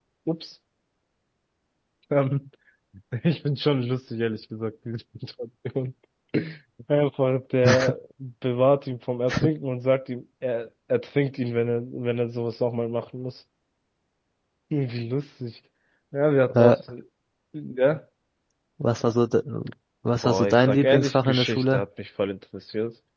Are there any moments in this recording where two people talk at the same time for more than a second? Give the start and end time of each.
20.2-21.8

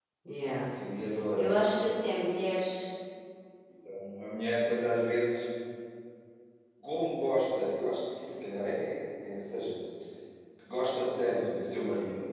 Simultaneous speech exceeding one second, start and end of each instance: none

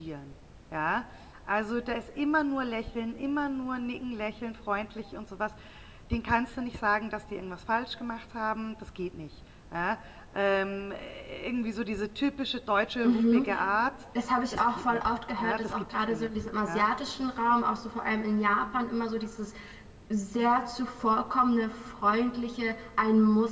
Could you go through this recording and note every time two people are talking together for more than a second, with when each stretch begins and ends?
14.5-16.9

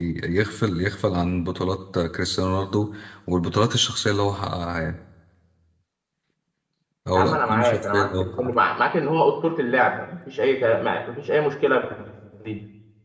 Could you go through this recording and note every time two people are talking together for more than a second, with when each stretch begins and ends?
7.1-8.5

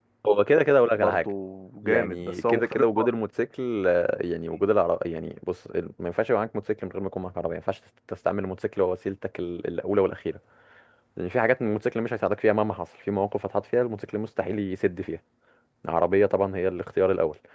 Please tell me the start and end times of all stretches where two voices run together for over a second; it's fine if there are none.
1.9-3.1

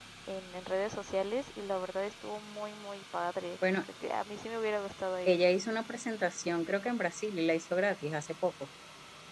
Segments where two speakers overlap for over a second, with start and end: none

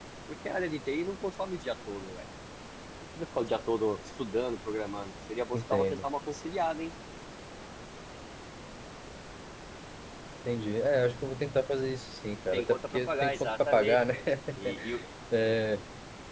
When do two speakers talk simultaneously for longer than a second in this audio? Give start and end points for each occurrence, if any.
12.5-14.2

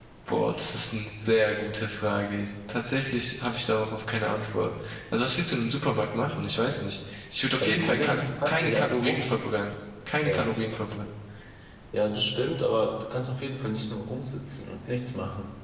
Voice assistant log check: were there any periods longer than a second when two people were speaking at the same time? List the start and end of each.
7.6-9.2

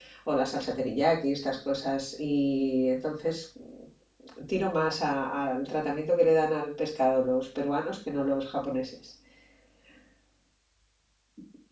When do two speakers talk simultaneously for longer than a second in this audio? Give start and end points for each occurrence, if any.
none

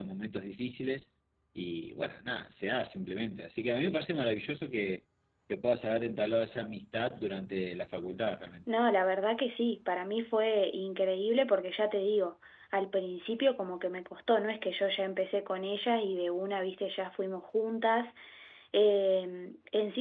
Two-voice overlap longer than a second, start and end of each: none

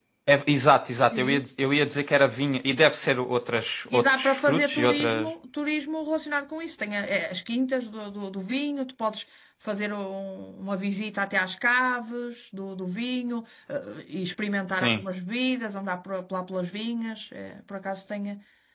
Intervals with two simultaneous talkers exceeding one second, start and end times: 3.9-5.3

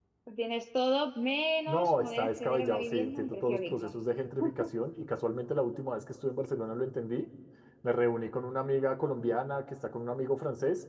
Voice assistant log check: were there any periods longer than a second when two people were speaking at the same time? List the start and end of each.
1.7-3.9

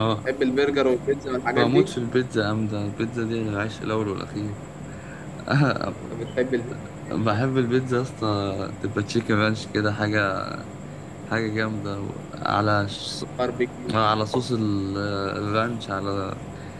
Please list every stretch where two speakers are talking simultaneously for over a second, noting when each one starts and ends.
none

